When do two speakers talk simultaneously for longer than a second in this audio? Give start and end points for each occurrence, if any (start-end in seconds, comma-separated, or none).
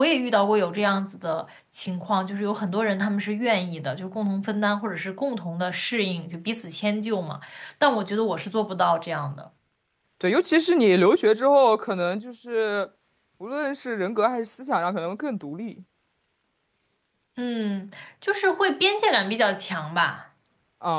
none